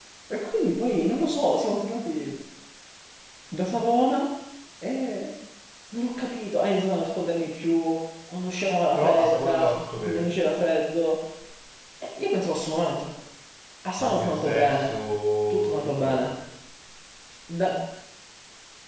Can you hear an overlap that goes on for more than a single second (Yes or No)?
Yes